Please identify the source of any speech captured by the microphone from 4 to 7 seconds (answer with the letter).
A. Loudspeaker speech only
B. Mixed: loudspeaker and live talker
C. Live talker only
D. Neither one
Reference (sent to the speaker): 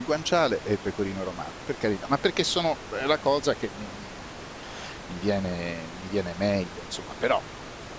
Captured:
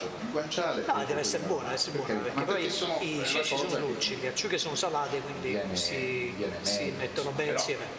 B